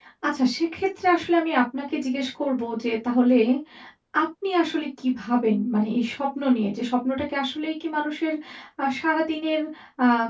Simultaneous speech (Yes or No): No